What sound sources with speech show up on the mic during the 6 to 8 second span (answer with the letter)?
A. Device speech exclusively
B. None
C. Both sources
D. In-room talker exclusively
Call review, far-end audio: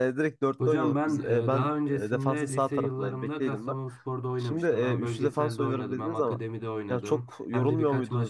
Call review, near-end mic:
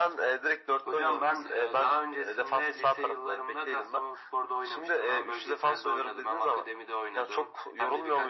A